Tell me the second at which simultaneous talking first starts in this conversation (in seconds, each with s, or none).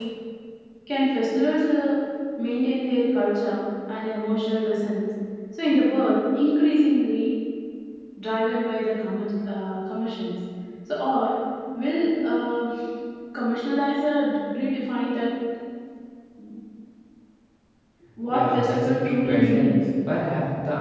18.3 s